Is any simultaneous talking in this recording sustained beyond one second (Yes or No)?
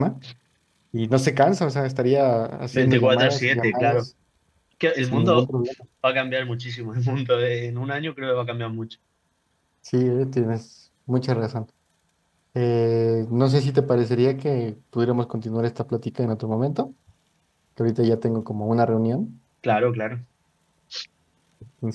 Yes